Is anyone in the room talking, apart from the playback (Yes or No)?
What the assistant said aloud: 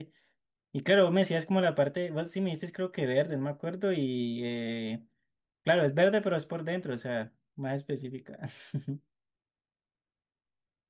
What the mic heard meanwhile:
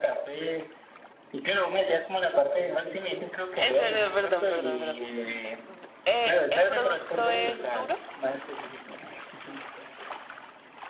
Yes